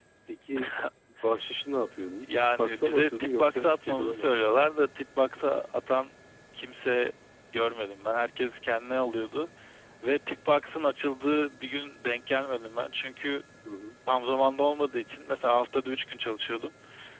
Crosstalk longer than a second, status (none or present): present